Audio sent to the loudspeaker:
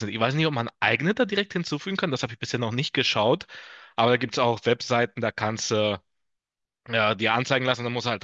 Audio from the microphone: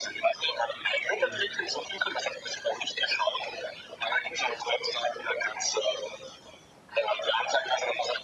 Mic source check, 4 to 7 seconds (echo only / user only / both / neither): echo only